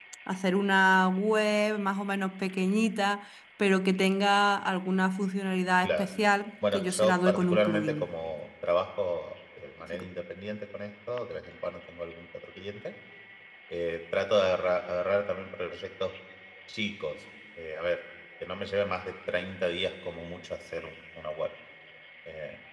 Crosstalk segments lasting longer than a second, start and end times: 6.7-8.1

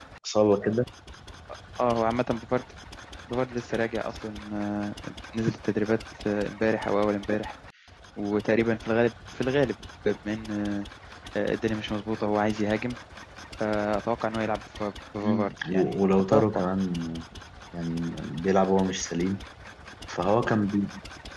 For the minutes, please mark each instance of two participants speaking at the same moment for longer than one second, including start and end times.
15.2-16.7

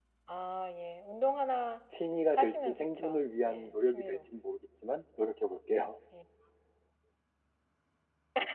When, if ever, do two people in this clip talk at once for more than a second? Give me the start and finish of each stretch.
2.4-4.2

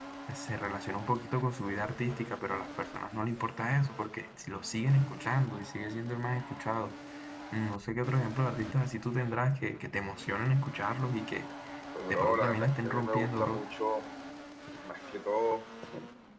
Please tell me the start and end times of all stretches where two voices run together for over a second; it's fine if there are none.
12.1-13.6

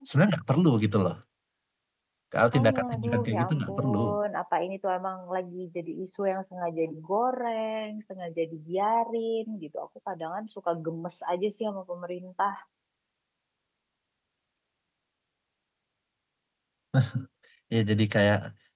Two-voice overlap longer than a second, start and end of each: 2.4-4.0

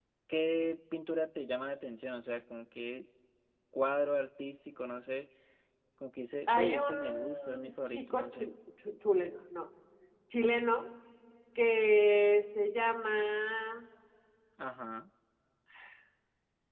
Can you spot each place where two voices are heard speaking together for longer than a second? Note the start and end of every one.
6.5-8.5

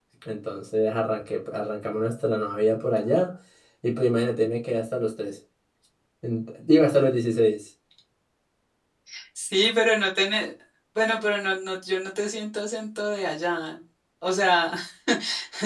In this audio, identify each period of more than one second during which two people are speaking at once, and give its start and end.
none

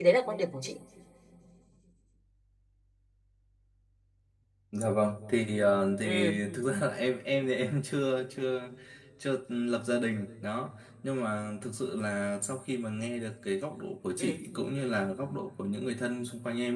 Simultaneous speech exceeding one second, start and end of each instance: none

